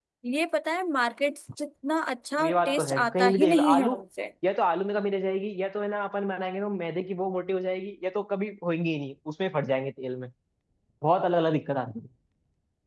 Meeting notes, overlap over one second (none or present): present